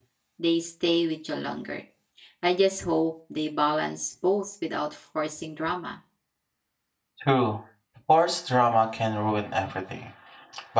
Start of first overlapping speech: none

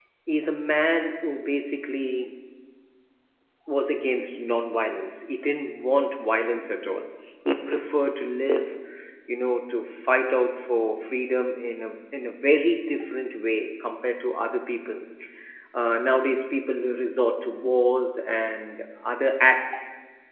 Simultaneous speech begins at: none

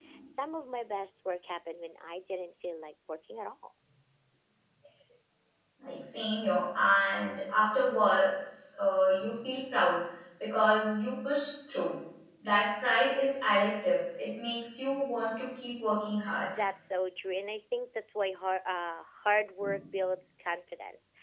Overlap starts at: none

